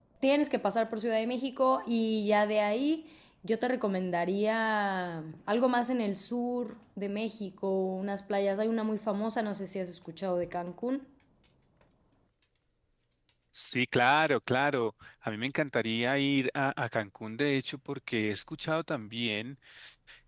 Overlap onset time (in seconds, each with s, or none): none